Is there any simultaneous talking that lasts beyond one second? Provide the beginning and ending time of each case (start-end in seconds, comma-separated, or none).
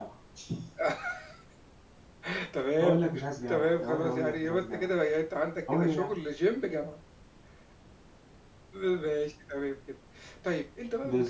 3.5-4.9